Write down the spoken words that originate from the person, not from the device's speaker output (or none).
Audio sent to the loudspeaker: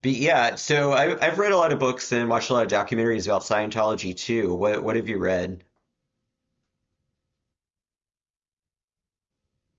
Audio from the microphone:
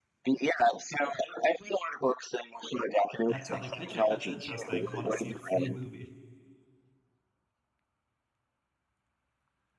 That's how they pitch it. That's interesting. Want to see a free movie?